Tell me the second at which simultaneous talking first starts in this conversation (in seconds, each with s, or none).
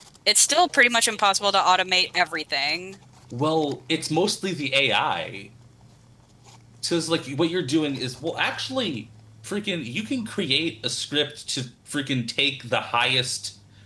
none